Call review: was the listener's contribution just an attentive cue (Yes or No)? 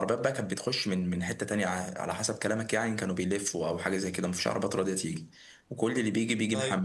Yes